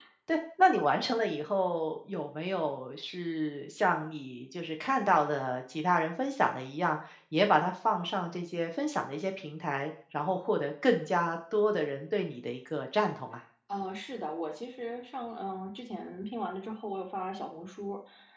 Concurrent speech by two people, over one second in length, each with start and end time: none

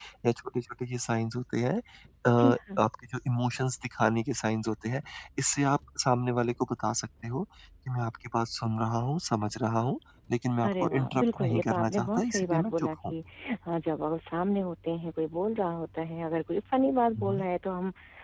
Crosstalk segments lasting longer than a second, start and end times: 10.6-13.1

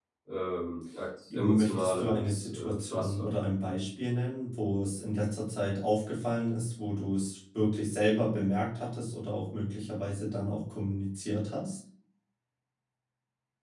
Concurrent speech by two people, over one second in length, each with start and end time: 1.3-3.3

